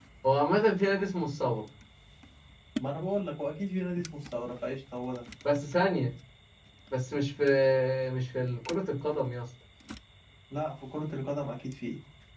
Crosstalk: none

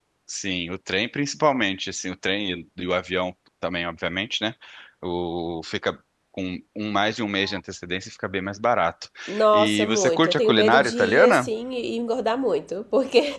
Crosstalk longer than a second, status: present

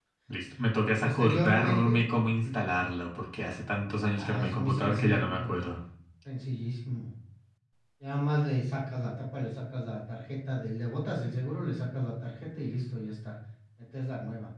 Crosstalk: present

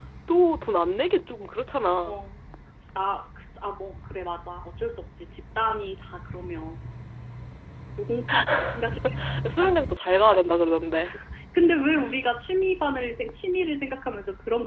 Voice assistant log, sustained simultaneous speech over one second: none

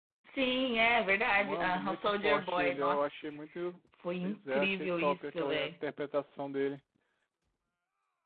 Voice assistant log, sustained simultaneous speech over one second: present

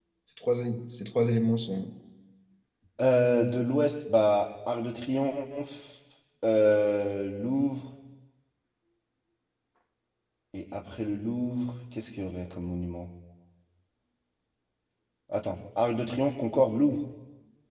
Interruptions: none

